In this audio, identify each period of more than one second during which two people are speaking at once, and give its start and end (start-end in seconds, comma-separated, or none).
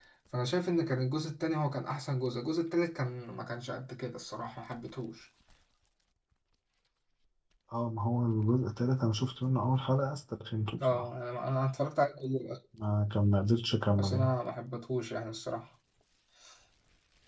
none